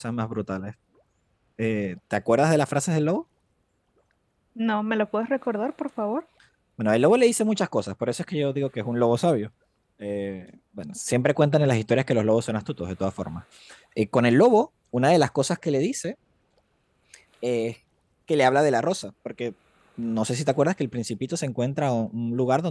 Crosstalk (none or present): none